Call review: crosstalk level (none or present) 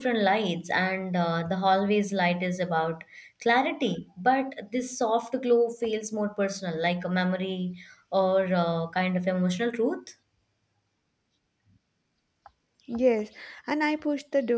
none